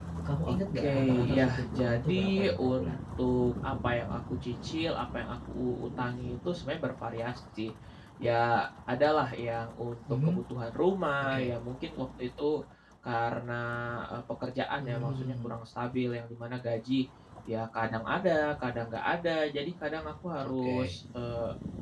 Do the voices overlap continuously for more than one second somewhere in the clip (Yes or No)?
Yes